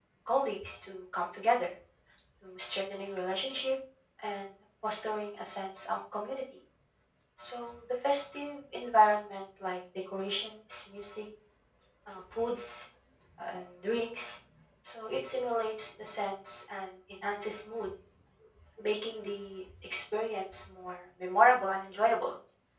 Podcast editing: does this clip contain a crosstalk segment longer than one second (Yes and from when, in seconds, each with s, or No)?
No